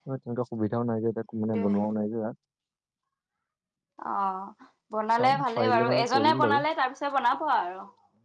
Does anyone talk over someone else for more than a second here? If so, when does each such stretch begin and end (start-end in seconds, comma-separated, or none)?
5.1-6.6